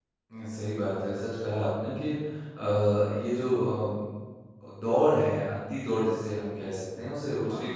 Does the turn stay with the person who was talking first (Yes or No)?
Yes